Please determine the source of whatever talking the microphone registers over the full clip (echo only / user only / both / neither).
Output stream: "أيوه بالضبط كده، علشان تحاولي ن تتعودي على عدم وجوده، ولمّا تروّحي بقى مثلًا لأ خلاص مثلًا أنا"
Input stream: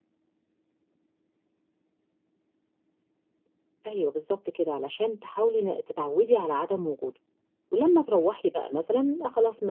echo only